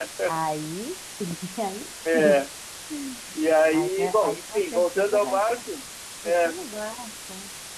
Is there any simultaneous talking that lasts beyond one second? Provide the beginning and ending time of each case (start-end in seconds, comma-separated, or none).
3.7-5.4